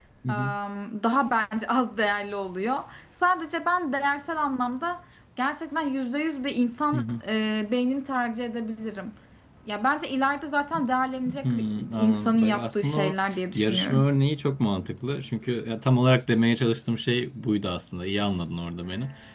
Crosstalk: present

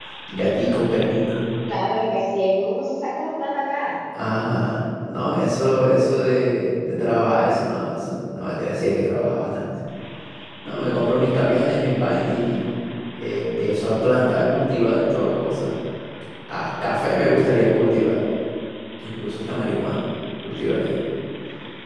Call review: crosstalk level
none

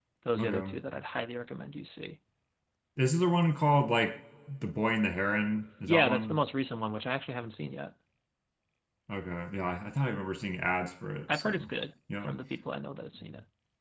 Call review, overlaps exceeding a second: none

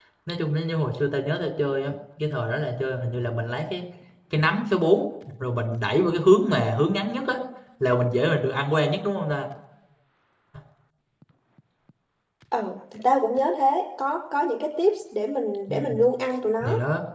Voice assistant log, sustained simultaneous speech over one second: none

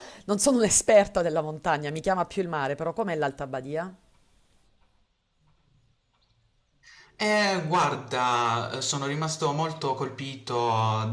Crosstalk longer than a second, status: none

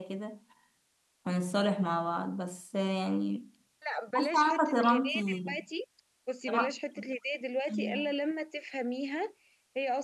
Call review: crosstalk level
present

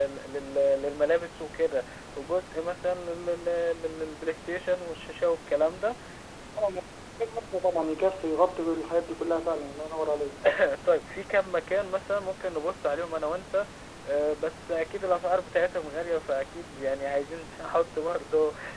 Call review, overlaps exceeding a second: none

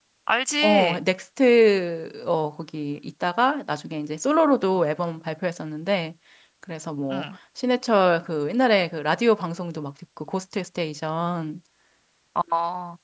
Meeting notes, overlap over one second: none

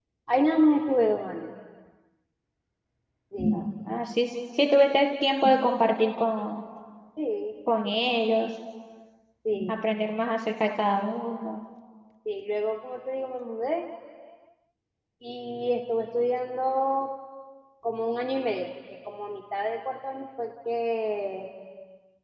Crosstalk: none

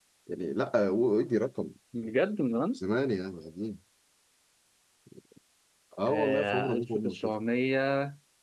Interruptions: present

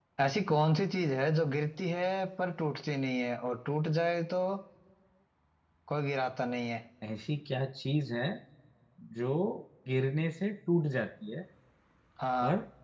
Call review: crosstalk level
none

